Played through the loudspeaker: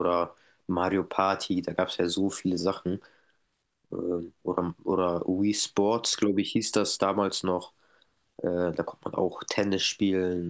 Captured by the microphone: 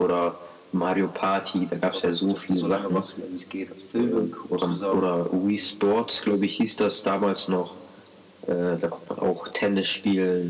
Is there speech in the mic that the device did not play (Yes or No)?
Yes